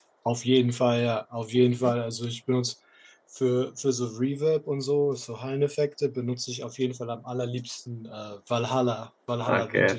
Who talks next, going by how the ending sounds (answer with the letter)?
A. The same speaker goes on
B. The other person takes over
B